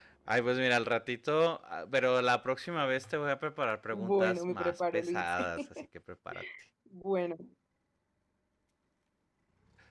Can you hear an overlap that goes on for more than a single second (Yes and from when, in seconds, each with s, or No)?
Yes, from 3.9 s